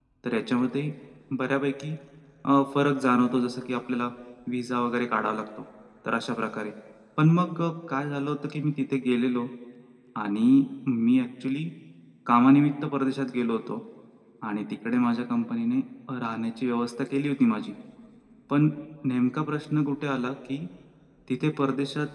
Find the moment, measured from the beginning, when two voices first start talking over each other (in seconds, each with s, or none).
none